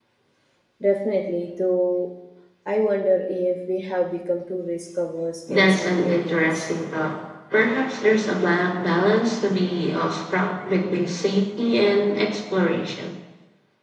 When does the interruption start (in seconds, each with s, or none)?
5.5 s